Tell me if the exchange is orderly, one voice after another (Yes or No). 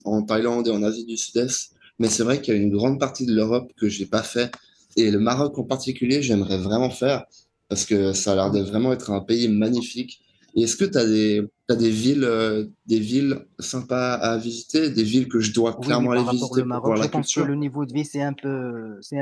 No